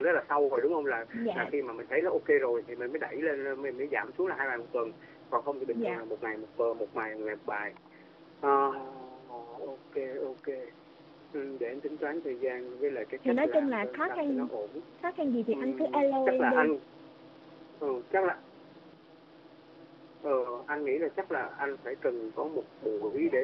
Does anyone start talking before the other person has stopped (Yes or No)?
Yes